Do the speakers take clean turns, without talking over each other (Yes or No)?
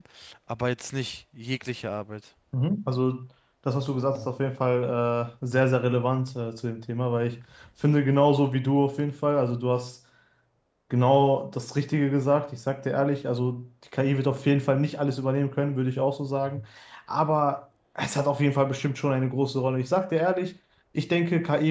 Yes